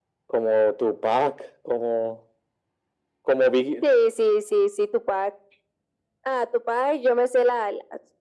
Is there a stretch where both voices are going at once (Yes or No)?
No